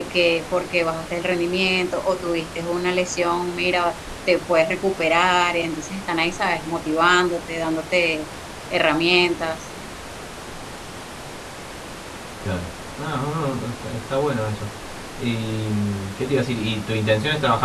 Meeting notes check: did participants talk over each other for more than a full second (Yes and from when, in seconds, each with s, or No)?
No